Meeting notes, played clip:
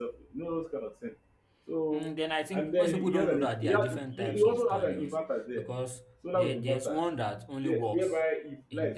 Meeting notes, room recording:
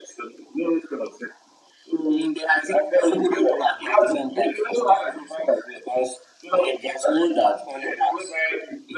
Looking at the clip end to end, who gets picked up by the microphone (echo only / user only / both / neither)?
echo only